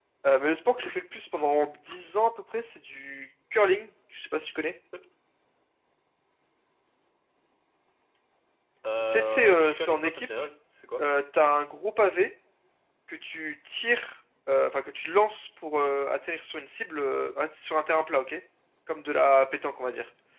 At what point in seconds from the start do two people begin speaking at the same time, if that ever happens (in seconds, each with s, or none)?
9.0 s